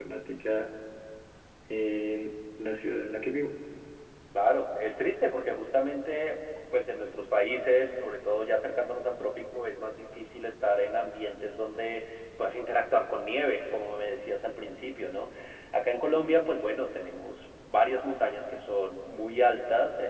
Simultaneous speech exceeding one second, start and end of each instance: none

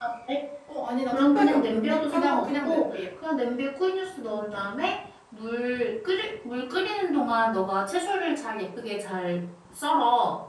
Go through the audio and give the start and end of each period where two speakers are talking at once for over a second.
1.1-3.0

